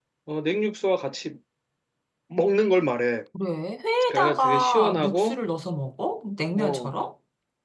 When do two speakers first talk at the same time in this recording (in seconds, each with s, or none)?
4.1 s